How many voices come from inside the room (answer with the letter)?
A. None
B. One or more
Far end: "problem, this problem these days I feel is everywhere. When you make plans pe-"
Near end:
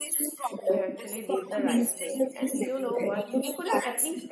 B